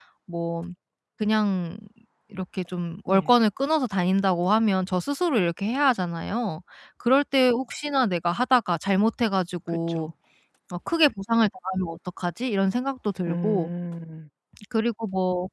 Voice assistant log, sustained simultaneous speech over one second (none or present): none